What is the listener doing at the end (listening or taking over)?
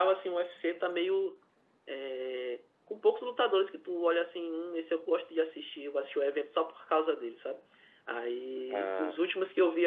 listening